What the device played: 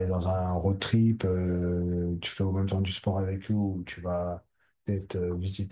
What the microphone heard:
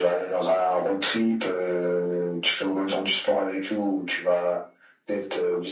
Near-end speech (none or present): none